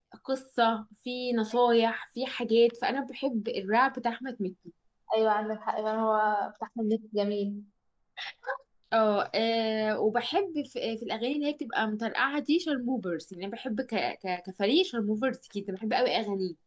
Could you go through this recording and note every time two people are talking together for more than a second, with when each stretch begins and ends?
none

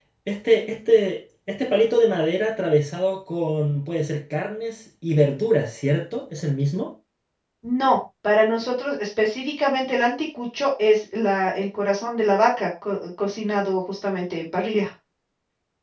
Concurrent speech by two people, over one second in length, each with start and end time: none

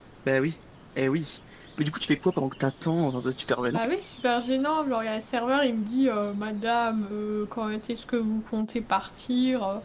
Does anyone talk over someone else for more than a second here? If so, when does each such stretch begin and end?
none

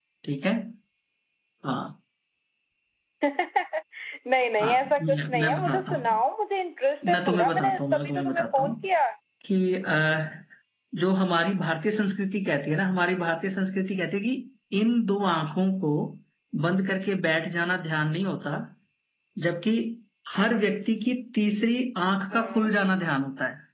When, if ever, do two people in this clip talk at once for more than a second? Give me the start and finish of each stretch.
4.6-6.2, 7.1-8.7

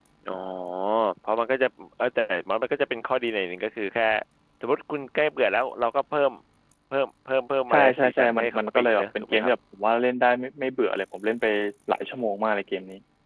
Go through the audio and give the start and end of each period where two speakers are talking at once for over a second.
7.7-9.5

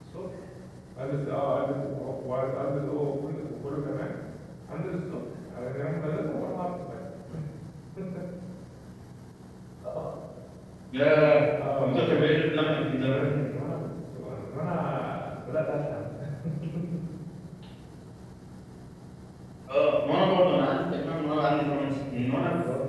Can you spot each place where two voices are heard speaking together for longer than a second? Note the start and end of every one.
11.8-13.3

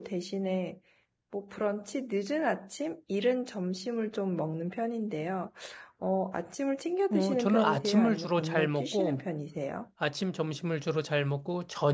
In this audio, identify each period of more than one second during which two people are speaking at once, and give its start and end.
7.1-9.2

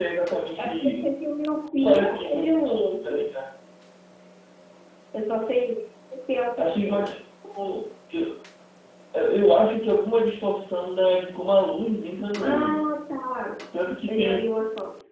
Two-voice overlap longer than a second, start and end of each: 1.8-3.1

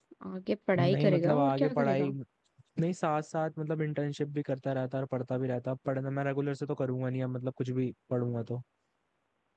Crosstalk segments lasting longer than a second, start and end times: 0.8-2.1

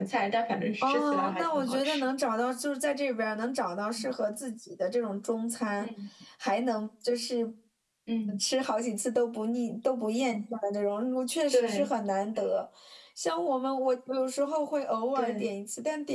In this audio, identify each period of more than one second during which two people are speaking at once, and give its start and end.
0.8-2.0

